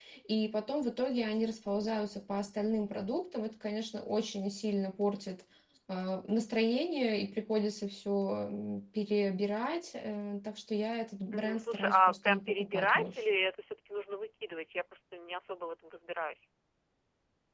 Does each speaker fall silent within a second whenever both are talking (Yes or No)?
No